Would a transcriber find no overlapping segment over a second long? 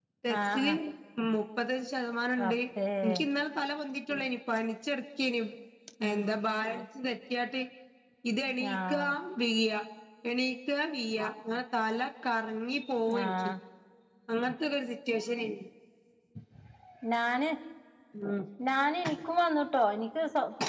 Yes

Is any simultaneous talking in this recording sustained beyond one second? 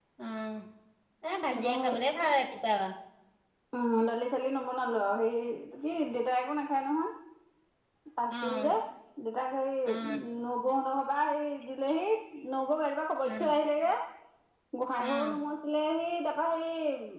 No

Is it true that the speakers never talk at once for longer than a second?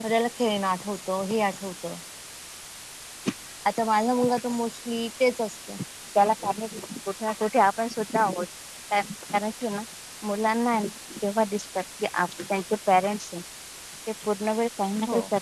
Yes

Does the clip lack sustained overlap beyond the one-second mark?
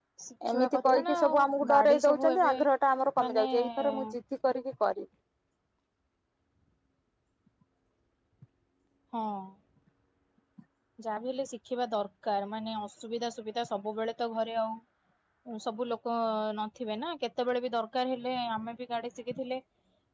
No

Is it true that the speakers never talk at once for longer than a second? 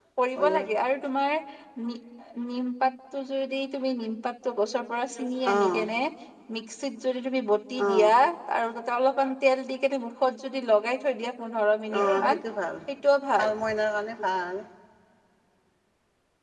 Yes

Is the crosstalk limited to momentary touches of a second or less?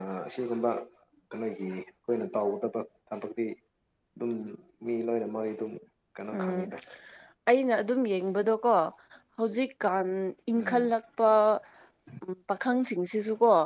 Yes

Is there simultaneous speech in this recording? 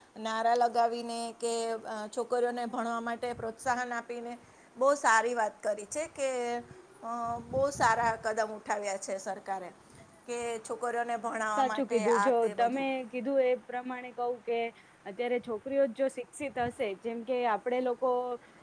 Yes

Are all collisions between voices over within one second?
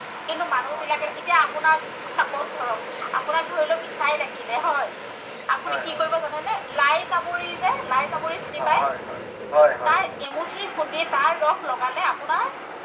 Yes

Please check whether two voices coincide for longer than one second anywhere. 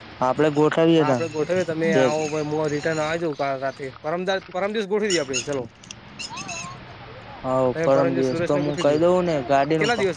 Yes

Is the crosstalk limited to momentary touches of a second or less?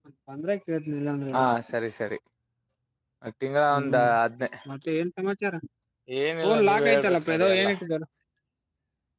No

